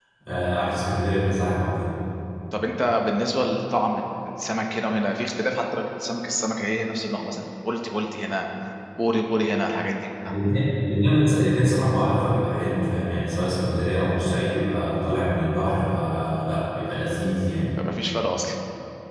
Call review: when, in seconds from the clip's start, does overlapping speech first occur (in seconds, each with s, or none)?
none